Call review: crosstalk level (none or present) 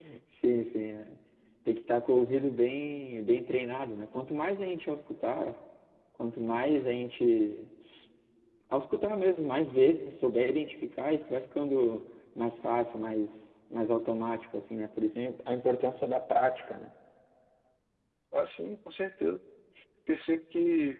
none